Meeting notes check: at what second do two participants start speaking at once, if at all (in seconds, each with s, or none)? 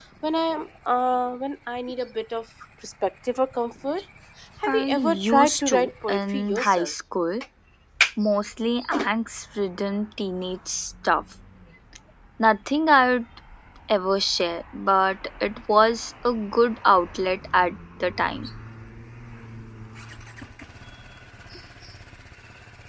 4.7 s